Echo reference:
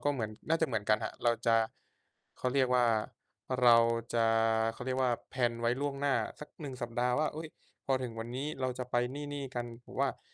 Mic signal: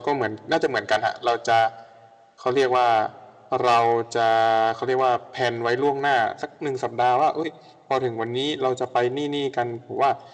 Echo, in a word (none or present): present